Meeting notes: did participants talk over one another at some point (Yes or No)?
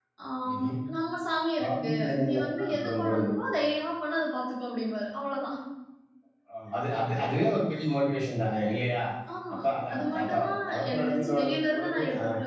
Yes